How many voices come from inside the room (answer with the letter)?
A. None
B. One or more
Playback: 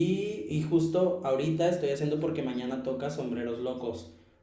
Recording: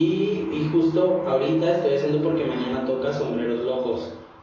A